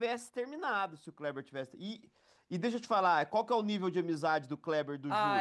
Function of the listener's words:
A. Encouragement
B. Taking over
B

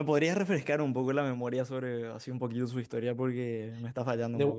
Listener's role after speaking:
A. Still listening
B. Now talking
B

